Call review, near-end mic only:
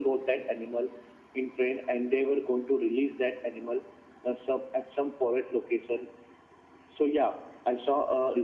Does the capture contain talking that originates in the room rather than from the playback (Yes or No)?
No